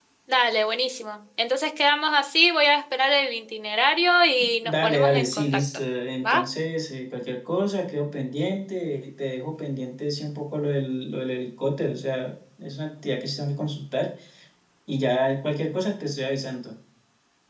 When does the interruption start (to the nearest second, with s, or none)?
4 s